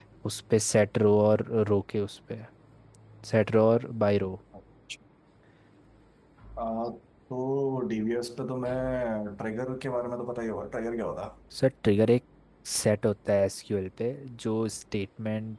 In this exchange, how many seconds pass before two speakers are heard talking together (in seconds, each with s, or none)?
none